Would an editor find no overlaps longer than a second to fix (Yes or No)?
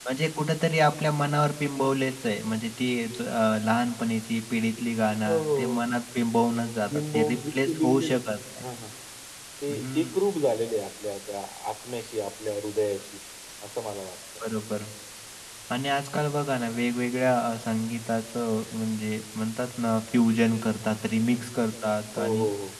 No